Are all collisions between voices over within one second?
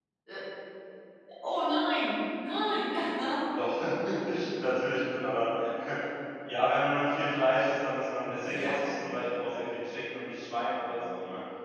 Yes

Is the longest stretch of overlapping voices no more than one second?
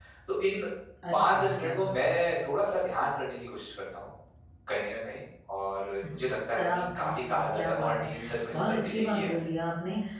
No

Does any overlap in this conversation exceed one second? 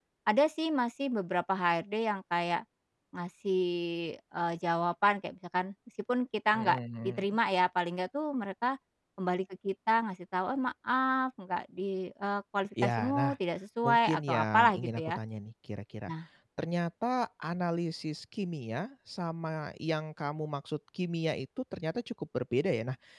Yes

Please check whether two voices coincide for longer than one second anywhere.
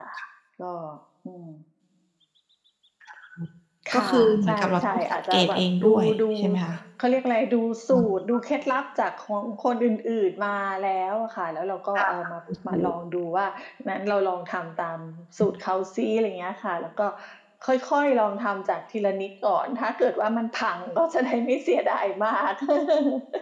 Yes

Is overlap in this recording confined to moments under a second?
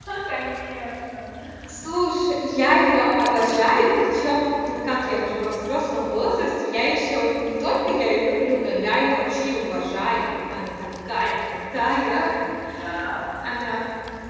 Yes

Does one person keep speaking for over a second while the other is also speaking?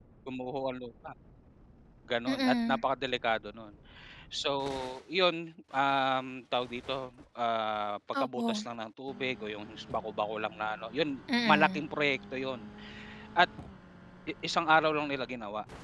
No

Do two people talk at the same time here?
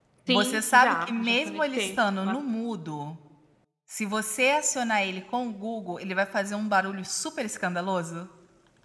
Yes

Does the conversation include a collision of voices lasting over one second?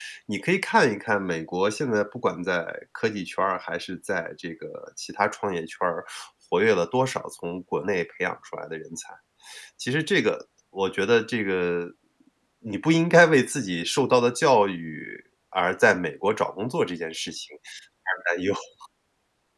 No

